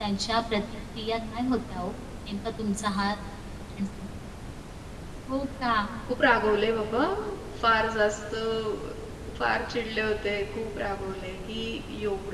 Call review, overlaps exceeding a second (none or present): none